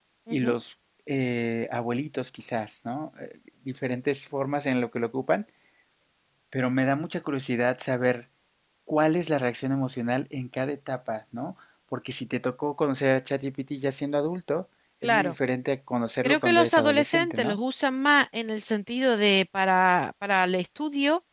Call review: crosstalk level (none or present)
present